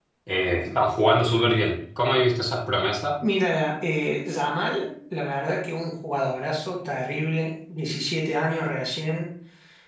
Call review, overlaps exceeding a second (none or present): none